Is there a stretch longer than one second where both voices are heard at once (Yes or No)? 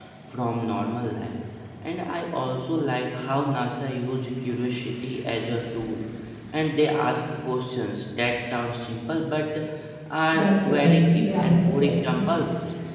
Yes